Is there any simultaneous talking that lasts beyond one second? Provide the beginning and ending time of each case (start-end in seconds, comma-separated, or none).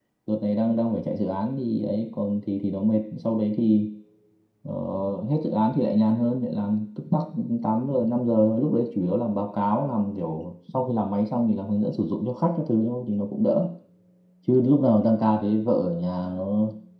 none